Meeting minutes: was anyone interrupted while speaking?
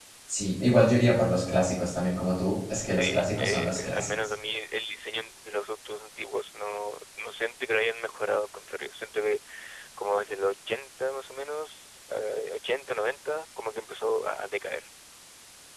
Yes, from 2.9 s

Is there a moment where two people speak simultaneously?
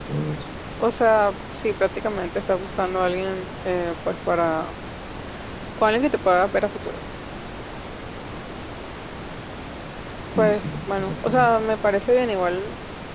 Yes, from 10.4 s

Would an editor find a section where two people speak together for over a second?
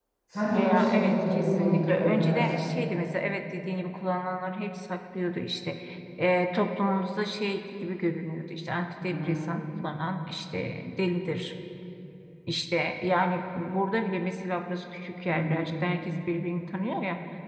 Yes, from 0.5 s

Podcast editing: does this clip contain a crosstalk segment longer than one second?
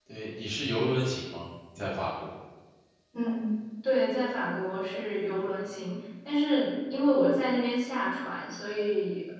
No

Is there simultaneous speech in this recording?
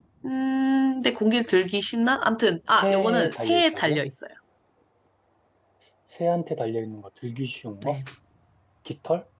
Yes, from 2.7 s

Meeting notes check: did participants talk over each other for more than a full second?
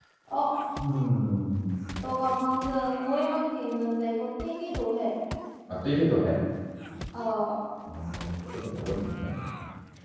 No

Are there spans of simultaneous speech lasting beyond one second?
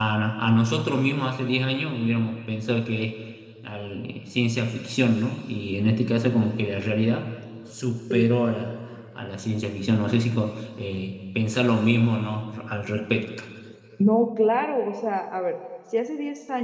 No

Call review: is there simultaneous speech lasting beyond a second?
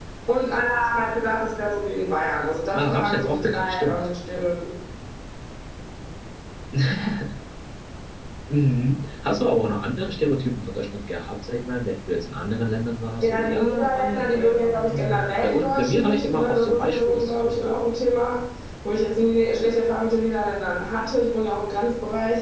Yes, from 2.7 s

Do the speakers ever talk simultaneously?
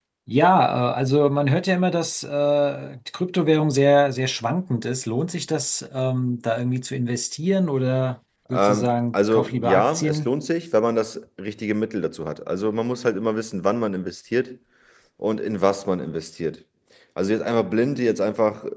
Yes, from 8.5 s

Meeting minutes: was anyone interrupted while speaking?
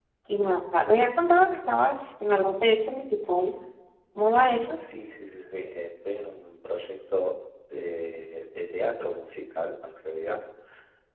No

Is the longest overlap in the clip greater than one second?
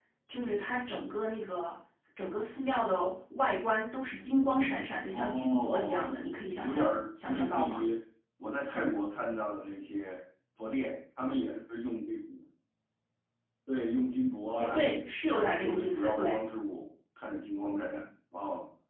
Yes, from 5.1 s

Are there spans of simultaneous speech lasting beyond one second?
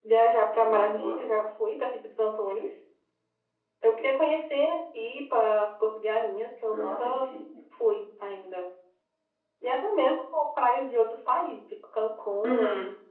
No

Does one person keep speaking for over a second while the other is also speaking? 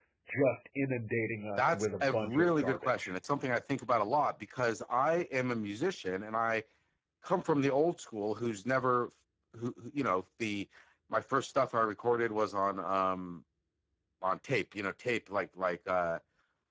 Yes, from 1.6 s

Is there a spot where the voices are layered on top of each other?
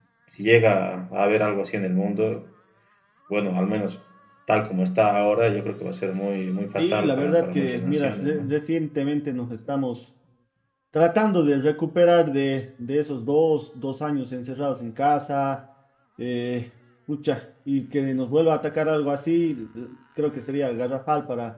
Yes, from 6.8 s

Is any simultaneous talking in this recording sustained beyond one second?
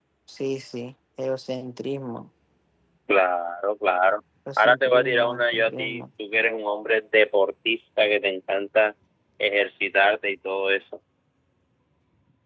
Yes, from 4.6 s

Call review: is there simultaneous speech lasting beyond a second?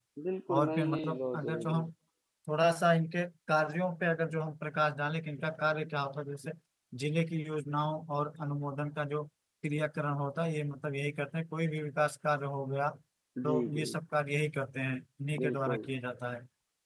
Yes, from 0.5 s

